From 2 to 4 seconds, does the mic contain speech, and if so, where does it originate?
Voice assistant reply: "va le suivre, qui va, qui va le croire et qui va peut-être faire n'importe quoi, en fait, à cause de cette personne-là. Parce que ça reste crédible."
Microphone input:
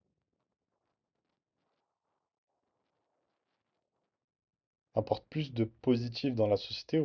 neither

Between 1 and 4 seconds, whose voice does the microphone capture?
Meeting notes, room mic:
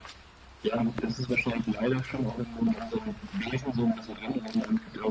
echo only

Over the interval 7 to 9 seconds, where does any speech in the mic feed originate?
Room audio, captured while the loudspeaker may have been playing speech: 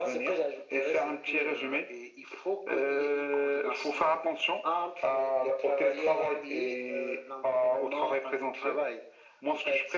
echo only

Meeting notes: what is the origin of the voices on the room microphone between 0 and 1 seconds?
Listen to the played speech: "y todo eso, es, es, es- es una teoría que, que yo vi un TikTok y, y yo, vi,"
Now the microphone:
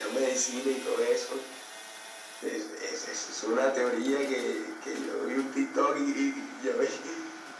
echo only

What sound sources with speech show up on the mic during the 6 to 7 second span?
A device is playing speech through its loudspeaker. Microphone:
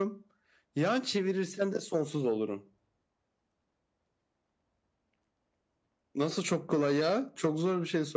echo only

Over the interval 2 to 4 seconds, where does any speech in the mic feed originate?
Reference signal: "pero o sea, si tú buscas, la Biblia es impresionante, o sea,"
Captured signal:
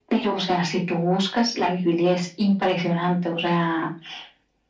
echo only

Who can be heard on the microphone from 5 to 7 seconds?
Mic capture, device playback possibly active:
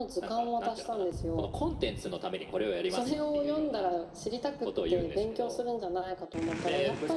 echo only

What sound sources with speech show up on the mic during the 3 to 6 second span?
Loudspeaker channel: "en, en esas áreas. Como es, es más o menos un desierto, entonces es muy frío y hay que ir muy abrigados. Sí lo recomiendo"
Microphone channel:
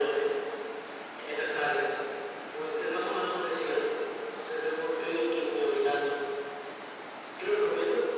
echo only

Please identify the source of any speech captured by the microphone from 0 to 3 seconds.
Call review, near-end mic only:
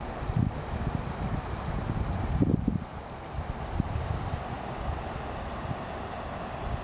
neither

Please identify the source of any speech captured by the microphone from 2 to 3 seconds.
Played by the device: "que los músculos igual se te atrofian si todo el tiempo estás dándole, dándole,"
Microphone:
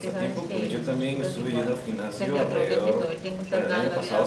both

